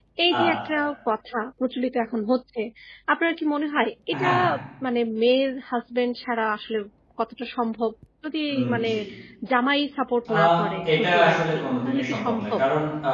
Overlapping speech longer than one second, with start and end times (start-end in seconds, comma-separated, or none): 10.9-12.6